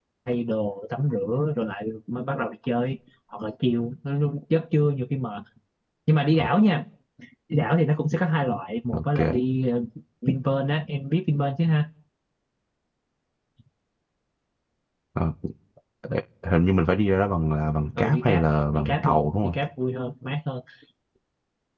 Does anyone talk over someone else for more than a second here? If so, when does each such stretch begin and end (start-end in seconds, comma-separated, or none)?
18.0-19.6